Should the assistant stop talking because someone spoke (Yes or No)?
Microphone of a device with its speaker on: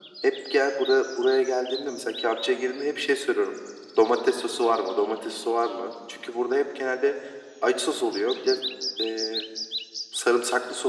No